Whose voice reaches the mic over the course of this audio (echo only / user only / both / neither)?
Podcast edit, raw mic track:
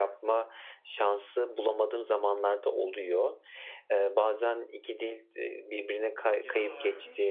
both